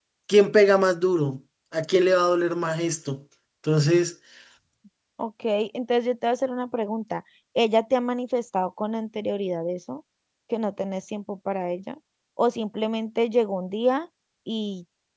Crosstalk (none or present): none